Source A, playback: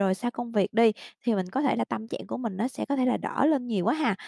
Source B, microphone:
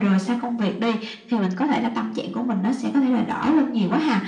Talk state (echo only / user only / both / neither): echo only